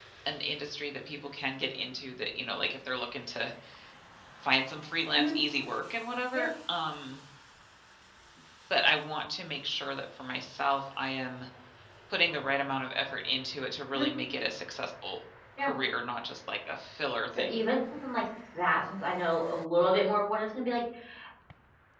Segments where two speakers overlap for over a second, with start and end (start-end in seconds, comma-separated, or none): none